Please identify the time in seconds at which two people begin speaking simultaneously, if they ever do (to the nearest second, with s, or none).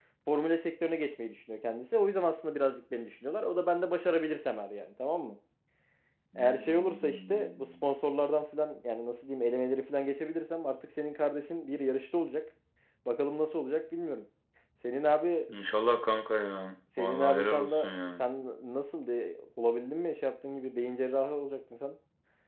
6 s